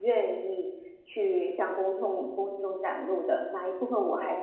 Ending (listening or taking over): listening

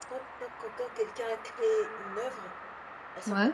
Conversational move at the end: listening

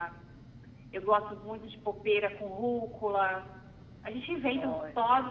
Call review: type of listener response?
listening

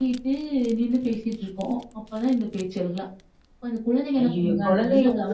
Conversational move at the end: taking over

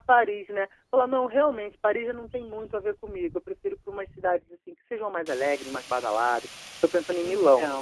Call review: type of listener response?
listening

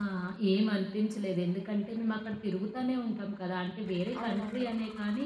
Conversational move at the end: listening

